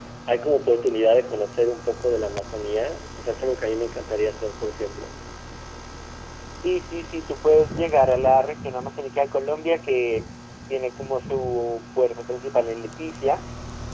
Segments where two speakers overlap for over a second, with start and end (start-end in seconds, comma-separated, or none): none